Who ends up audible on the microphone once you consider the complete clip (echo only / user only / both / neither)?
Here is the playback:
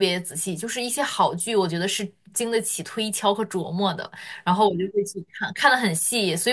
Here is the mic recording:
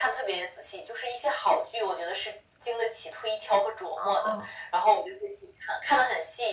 both